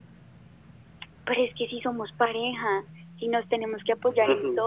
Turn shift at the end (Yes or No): Yes